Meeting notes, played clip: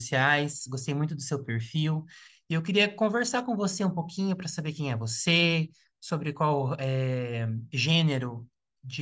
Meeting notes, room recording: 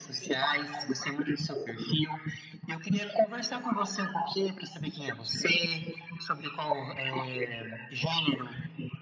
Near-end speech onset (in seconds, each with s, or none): none